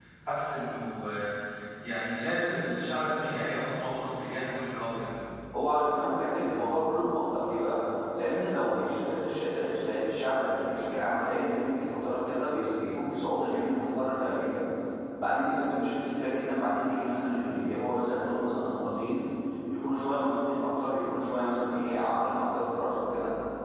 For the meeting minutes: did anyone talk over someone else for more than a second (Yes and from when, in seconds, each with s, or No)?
No